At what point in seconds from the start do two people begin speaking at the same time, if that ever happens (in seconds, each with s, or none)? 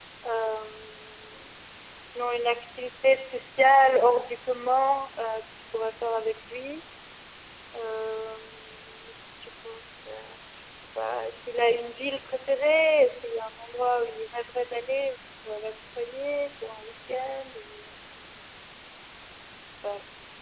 none